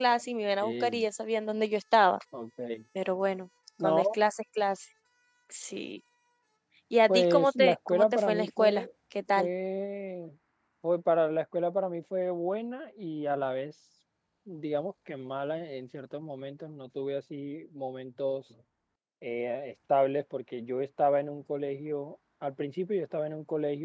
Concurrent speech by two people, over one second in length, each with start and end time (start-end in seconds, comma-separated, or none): 7.1-8.9